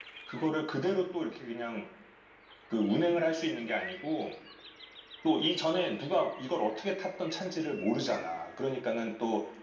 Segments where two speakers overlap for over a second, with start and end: none

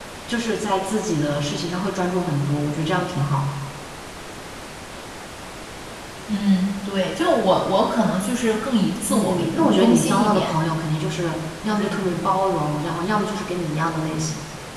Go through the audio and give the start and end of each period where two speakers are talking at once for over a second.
9.1-10.5

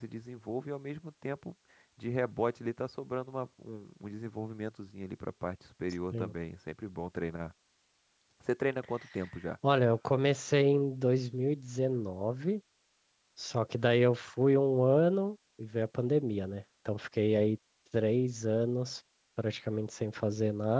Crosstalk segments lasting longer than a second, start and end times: none

